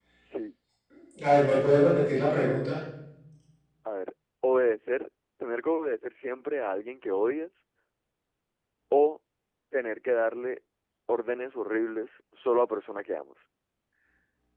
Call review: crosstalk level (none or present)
none